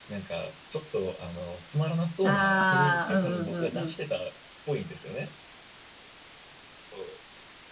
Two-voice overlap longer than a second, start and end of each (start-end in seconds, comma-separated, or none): 2.2-3.9